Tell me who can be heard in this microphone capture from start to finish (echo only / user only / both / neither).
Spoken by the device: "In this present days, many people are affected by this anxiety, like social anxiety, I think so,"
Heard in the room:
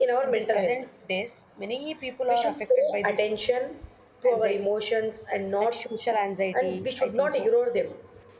both